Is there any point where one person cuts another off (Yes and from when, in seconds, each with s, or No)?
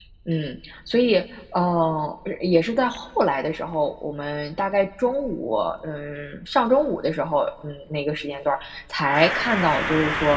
No